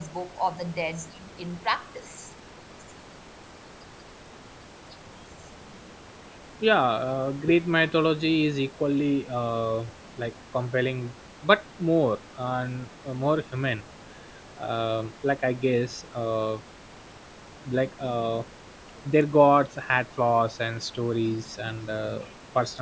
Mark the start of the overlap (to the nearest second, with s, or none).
none